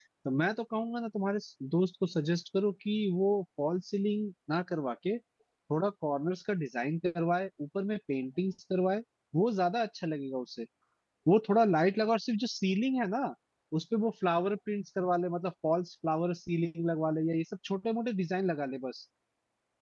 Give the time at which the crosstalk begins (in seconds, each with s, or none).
none